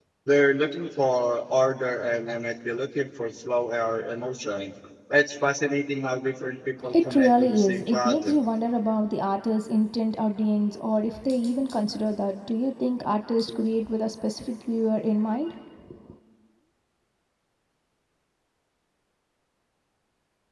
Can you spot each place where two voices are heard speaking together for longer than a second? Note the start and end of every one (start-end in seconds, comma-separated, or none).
6.9-8.4